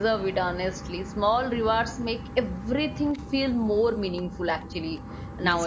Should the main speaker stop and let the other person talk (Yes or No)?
Yes